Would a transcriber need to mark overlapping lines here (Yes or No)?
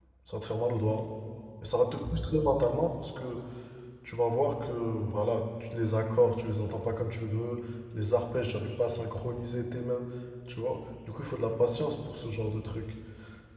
No